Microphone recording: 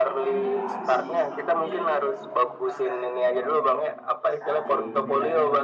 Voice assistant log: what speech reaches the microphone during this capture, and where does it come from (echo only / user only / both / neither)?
both